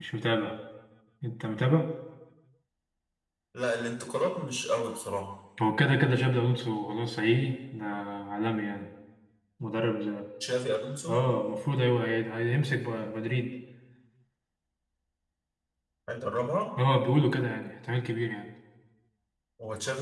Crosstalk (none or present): none